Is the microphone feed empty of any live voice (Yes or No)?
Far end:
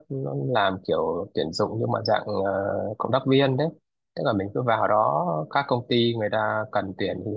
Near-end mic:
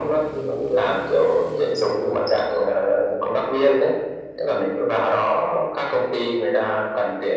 Yes